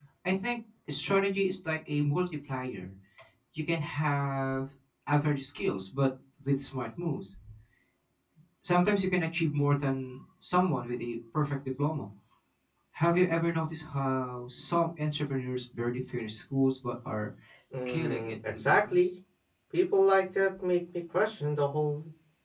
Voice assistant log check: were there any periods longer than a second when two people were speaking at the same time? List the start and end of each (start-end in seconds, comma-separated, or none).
17.9-19.1